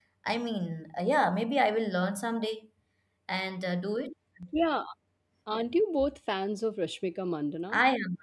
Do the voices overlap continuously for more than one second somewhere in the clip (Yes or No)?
No